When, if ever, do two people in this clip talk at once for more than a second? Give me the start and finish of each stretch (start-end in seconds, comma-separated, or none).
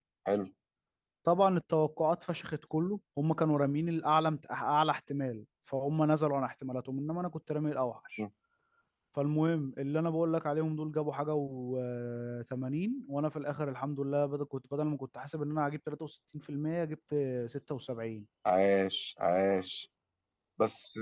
none